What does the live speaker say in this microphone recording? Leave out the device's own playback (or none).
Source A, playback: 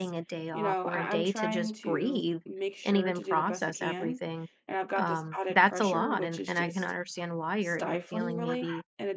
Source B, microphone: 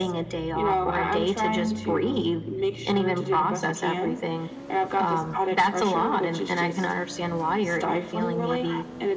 none